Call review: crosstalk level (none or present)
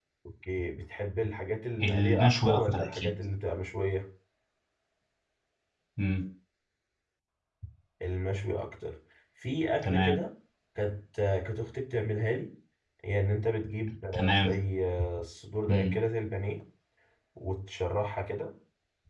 present